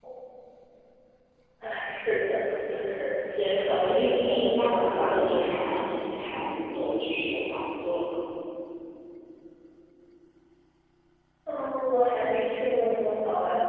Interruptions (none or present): present